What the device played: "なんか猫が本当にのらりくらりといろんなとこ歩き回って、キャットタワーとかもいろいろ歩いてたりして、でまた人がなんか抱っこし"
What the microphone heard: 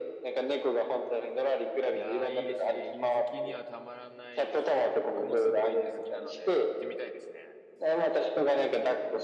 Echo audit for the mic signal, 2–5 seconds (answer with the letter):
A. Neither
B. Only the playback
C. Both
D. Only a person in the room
C